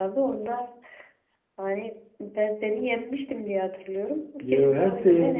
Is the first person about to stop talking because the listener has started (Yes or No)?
Yes